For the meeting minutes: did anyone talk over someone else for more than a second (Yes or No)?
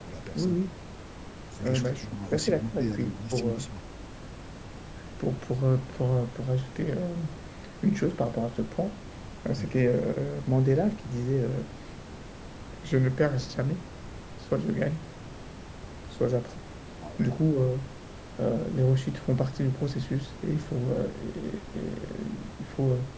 Yes